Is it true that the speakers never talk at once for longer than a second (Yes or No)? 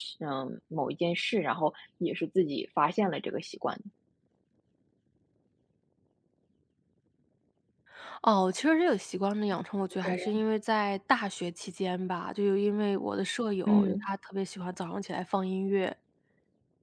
Yes